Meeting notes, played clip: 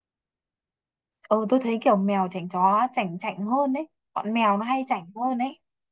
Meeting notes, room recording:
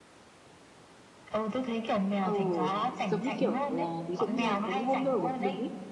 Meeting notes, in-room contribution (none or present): present